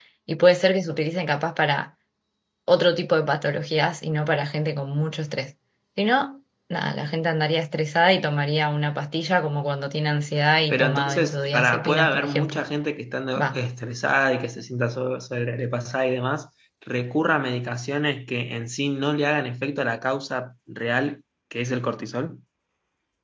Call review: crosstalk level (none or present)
present